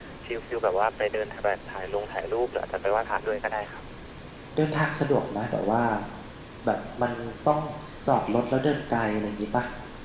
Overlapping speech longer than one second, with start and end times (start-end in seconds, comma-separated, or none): none